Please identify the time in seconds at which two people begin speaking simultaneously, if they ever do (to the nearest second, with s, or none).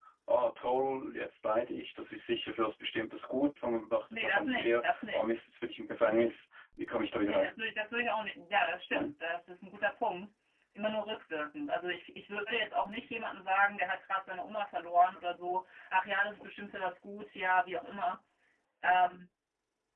4 s